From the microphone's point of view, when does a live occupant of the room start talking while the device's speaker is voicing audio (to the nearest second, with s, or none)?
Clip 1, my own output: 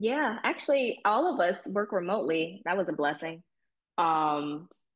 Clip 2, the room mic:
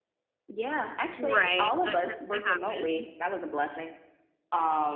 1 s